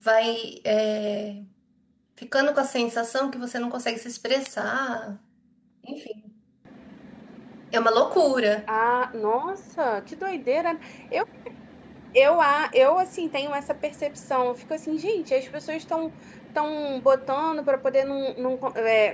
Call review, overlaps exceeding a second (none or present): none